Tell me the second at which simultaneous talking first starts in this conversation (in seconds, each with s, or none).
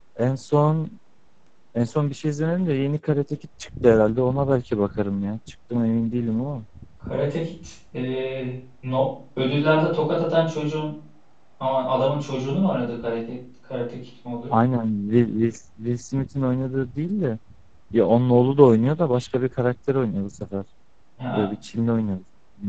none